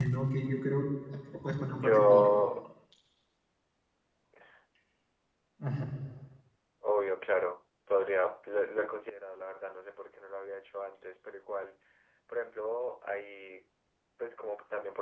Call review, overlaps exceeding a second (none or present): none